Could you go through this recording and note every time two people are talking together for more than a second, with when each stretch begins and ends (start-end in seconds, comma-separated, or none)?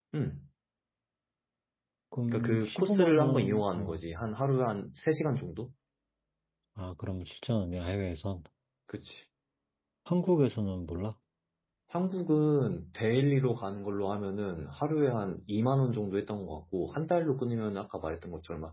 2.3-4.0